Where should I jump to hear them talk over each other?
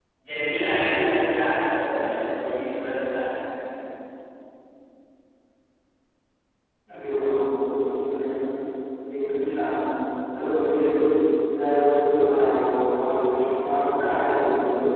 none

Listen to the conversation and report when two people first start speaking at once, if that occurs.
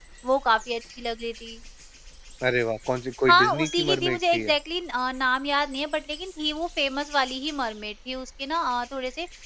3.3 s

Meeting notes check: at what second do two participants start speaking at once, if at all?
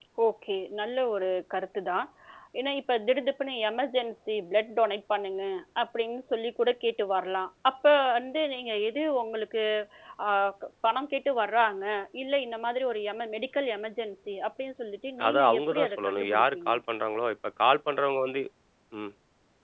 15.2 s

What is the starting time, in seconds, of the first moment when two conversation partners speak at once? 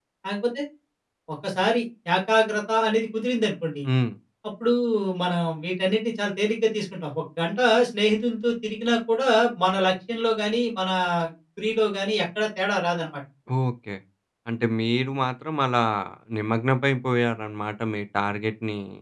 none

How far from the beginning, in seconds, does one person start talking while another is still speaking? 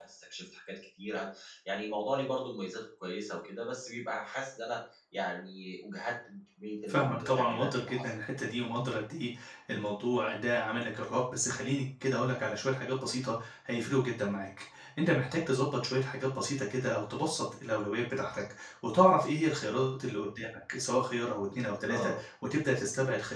6.9 s

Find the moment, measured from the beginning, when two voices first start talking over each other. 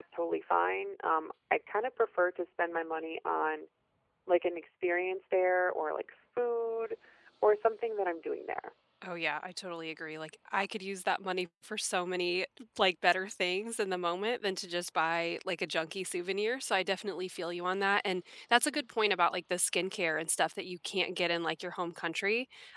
none

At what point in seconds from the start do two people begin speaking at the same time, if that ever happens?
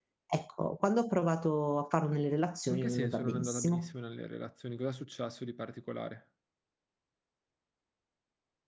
2.7 s

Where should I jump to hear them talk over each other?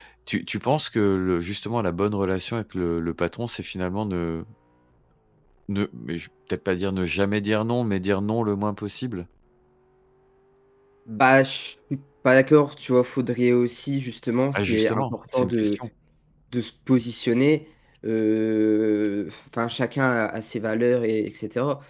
14.5 s

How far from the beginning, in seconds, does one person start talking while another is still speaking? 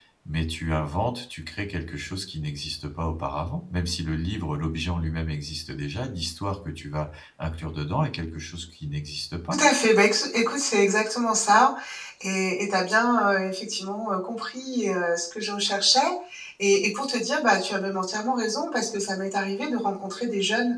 none

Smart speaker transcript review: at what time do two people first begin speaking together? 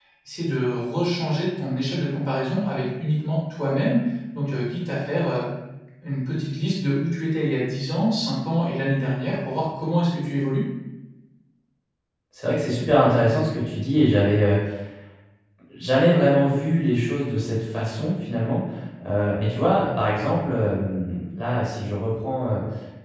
none

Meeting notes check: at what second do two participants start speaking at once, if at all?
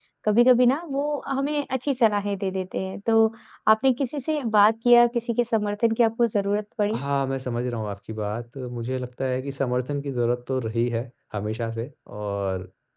none

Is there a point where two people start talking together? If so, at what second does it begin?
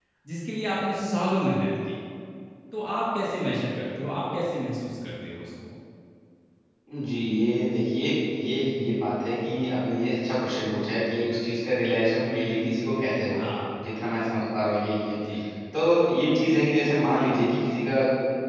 none

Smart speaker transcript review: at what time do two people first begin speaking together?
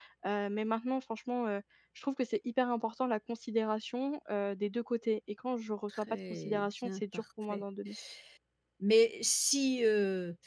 5.9 s

